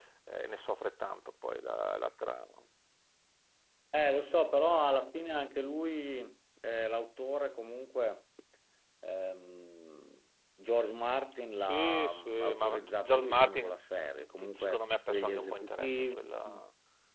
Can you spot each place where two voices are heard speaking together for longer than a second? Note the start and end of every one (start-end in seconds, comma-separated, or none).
11.6-13.7, 14.6-16.2